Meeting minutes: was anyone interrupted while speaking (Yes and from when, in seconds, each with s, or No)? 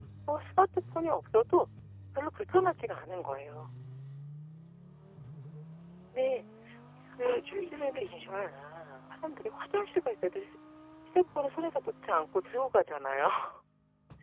Yes, from 7.2 s